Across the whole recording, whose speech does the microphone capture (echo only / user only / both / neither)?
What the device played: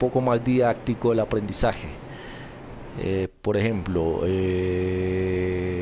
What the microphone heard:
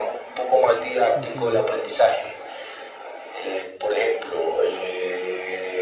both